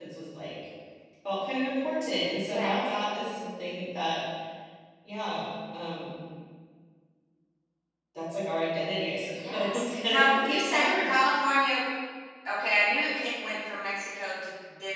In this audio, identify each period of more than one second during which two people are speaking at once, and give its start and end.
9.5-11.1

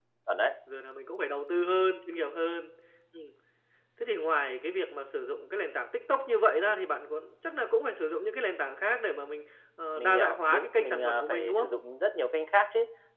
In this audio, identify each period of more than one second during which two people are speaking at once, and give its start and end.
10.0-11.7

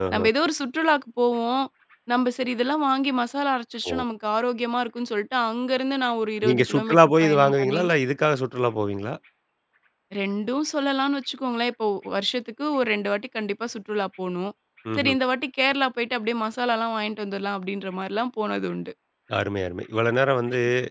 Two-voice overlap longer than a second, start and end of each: 6.4-7.8

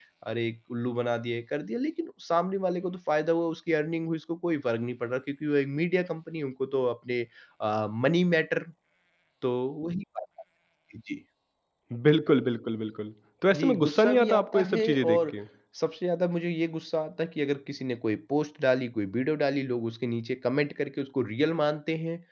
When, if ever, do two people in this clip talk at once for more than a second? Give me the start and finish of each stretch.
13.5-15.4

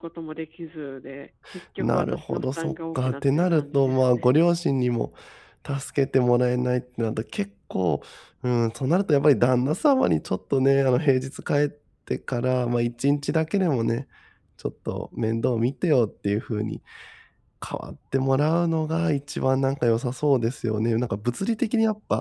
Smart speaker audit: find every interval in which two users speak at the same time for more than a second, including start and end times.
1.8-4.3

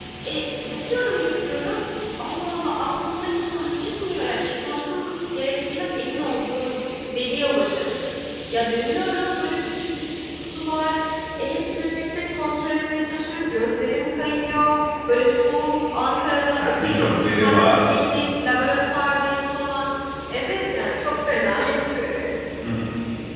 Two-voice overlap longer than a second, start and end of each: 16.6-18.0

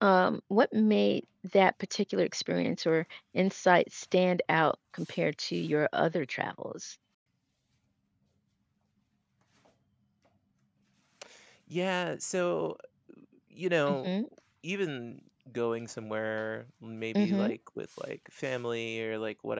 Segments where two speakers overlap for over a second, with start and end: none

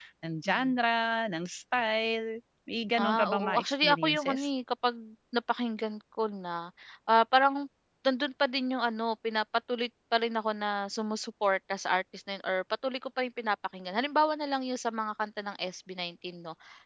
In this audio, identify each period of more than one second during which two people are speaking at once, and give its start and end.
3.0-4.5

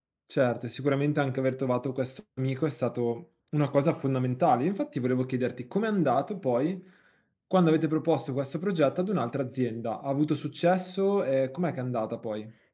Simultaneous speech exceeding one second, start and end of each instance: none

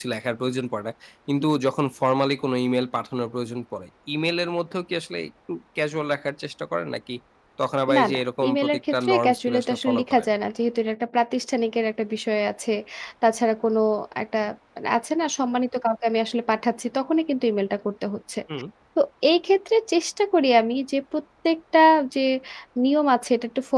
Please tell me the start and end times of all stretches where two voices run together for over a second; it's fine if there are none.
7.9-10.2

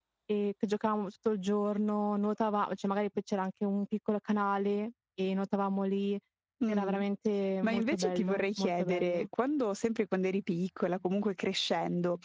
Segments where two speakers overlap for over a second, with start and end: 7.6-9.3

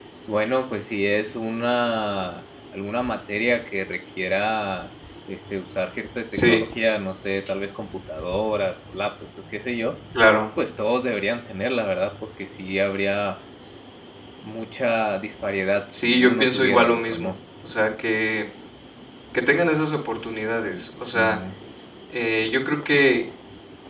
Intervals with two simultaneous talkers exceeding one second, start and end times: 15.9-17.3

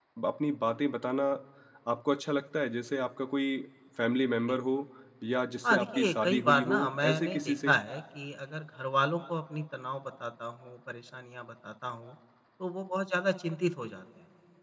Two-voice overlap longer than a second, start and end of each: 5.7-7.8

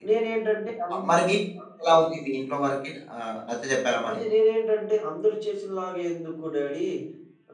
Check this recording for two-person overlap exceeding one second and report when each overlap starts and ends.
none

